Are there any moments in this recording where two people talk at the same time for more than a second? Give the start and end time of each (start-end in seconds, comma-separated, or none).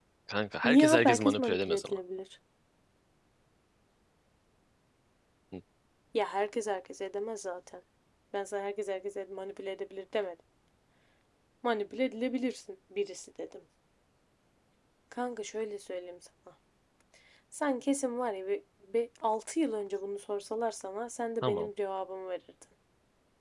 0.6-2.0